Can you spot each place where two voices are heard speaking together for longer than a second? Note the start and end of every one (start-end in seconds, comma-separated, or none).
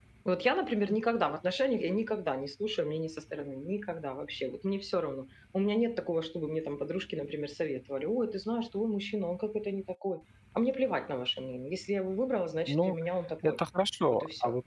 none